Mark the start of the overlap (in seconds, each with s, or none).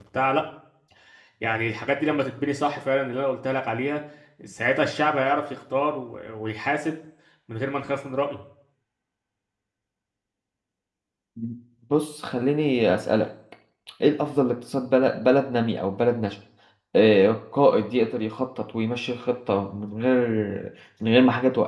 none